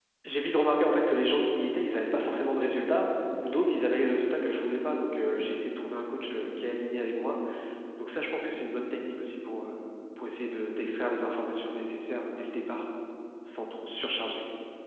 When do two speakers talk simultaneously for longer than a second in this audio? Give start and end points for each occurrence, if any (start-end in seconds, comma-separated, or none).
none